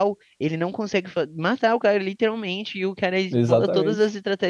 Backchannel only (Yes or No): Yes